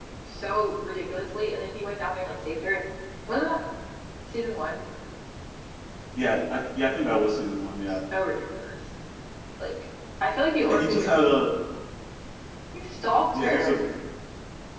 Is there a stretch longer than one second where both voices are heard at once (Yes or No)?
No